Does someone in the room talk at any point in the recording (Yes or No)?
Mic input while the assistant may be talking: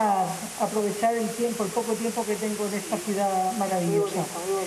Yes